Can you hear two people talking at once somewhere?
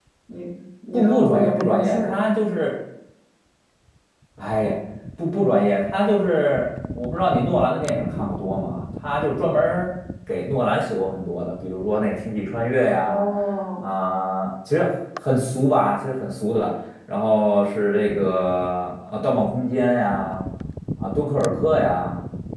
Yes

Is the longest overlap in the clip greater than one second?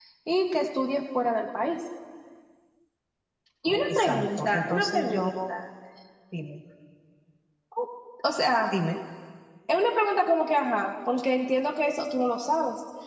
Yes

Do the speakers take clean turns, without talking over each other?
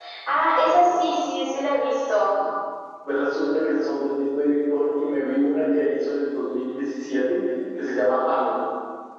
Yes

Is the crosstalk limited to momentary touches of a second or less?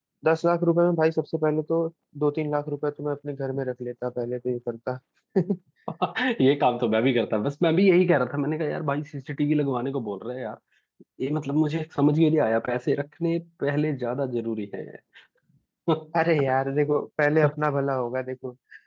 Yes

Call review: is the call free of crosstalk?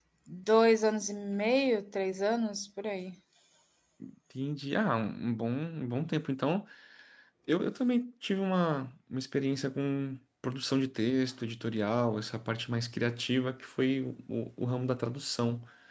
Yes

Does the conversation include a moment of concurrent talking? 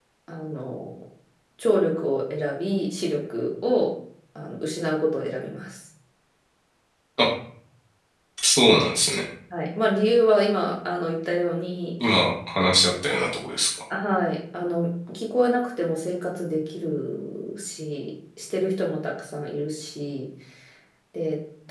No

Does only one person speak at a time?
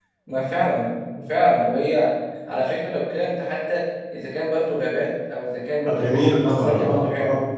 No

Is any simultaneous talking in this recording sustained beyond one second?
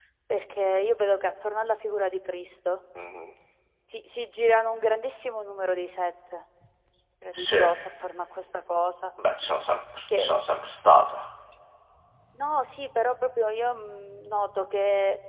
No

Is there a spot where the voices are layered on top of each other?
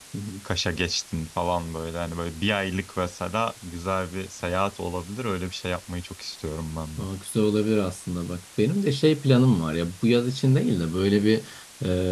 No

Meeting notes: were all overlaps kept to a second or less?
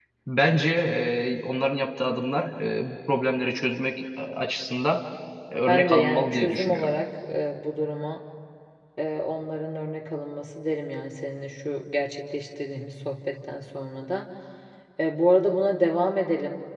No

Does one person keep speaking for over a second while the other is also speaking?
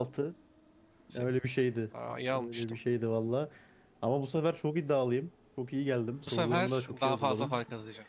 Yes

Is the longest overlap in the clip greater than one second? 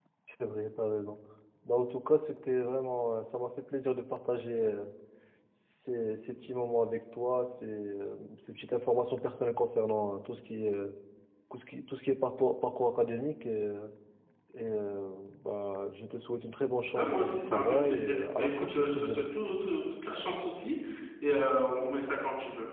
Yes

